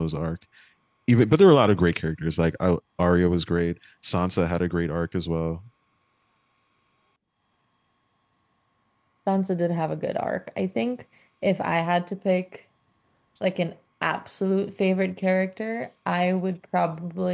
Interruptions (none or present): none